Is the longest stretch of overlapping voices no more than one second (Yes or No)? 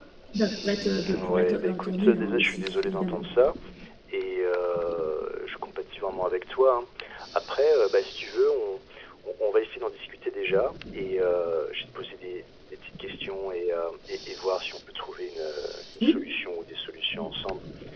No